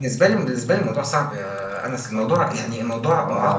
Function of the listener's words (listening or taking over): taking over